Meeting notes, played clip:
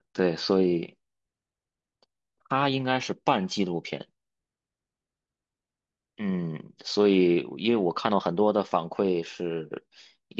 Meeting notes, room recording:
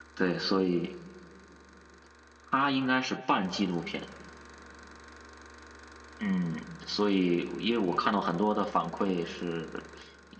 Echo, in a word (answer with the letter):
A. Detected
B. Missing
A